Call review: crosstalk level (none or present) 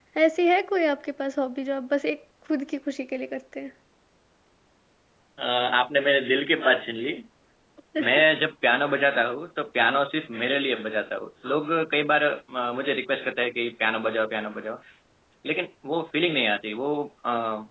none